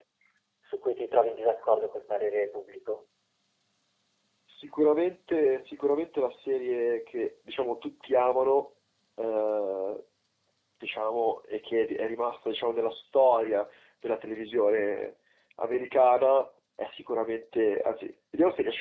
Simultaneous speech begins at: none

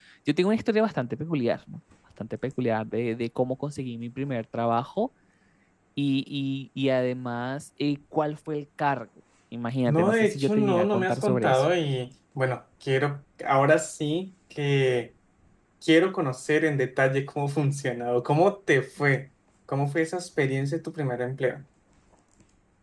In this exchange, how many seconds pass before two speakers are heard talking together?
9.9 s

